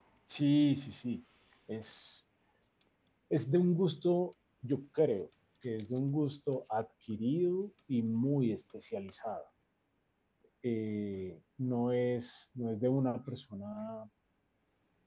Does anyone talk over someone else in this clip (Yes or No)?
No